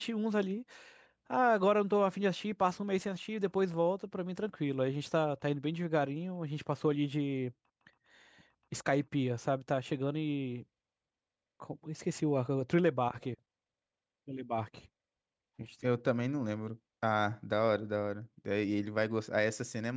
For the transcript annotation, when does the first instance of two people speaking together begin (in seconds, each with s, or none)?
none